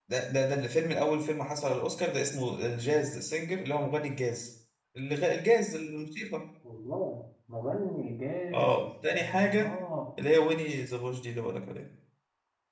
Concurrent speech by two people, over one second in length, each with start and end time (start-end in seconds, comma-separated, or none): 8.5-9.7